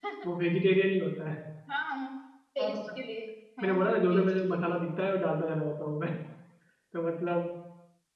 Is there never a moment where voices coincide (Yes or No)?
No